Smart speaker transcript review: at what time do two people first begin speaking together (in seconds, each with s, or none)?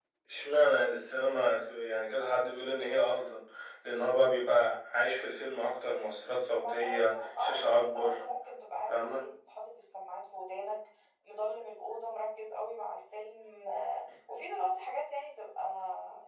6.6 s